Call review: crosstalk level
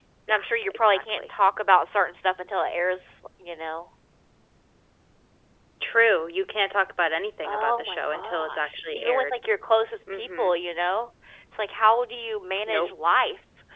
present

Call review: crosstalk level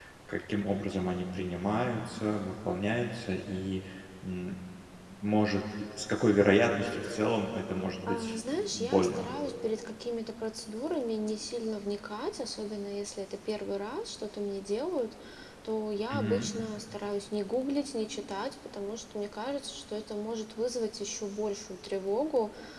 present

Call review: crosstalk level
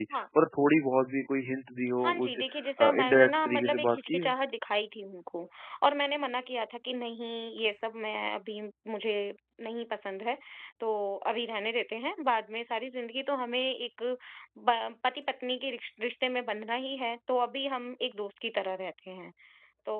present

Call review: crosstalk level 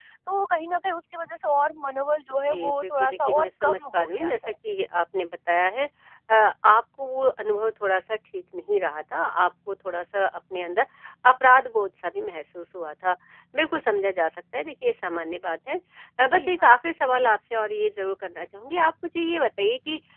present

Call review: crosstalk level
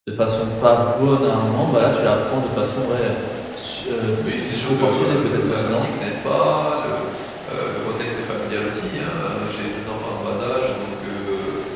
present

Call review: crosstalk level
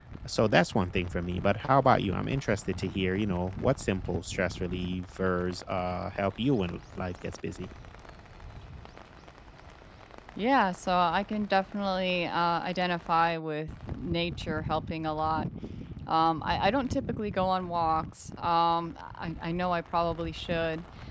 none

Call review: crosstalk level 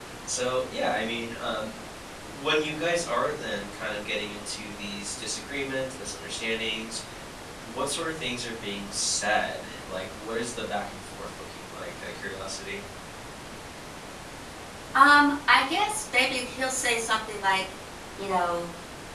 none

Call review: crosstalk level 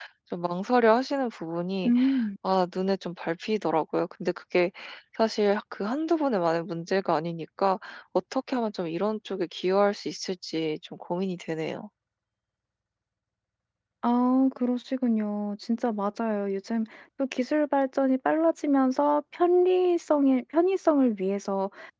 none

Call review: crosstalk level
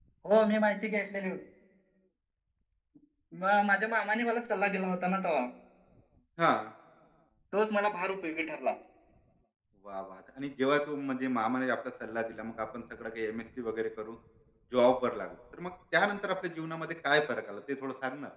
none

